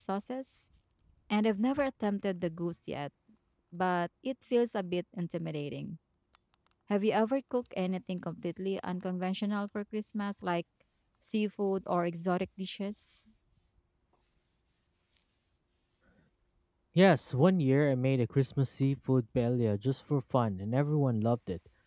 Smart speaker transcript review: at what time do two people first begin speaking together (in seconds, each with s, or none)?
none